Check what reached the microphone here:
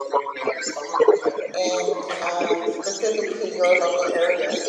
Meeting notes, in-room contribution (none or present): present